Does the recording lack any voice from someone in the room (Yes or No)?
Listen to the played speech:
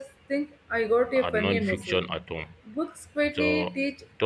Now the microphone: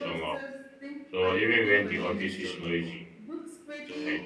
No